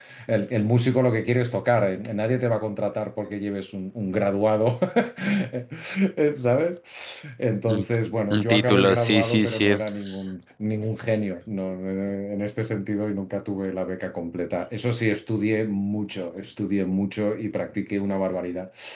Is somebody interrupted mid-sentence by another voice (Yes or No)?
Yes